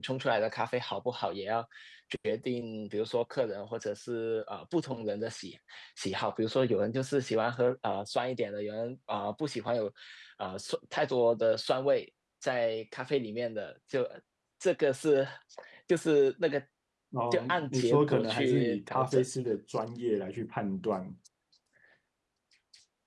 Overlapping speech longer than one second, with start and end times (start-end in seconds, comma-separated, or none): 17.3-19.2